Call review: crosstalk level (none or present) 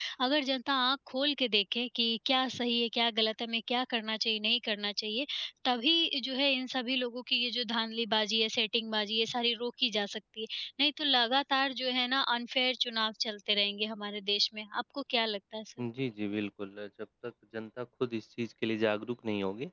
none